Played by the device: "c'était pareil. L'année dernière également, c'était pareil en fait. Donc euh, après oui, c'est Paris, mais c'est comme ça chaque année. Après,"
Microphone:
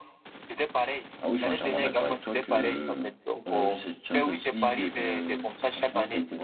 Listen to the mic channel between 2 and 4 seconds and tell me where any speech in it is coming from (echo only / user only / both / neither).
both